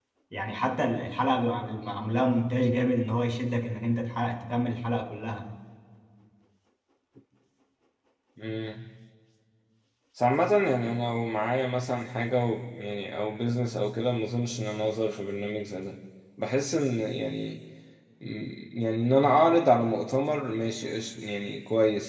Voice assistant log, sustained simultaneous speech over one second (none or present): none